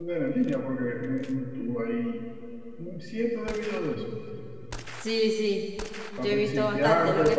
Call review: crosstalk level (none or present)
present